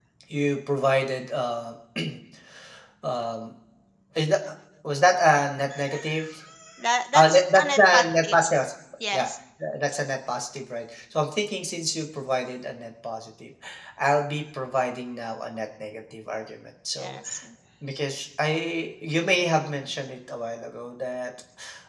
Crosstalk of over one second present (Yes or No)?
Yes